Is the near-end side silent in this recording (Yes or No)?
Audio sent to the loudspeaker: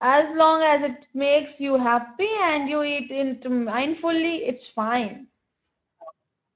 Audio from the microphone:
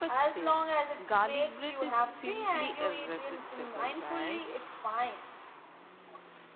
No